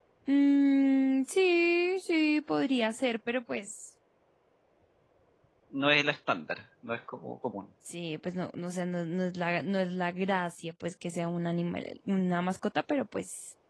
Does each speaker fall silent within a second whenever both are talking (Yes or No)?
Yes